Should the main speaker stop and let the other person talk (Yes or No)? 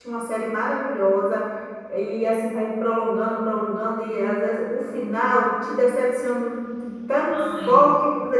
No